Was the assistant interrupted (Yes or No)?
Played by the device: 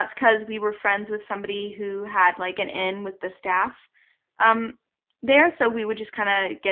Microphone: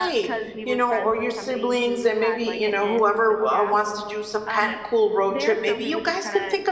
Yes